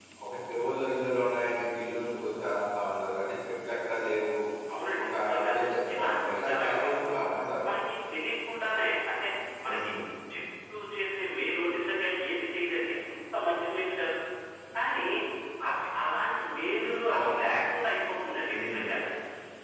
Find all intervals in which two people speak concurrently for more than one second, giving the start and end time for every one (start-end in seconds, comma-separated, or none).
5.0-7.0